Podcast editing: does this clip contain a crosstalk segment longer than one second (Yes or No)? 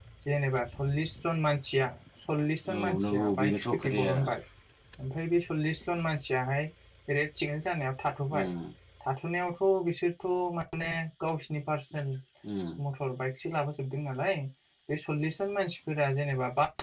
Yes